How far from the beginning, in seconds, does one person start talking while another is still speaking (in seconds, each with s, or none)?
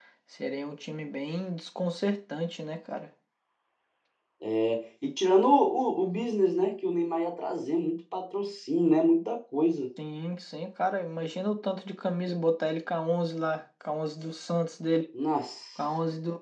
none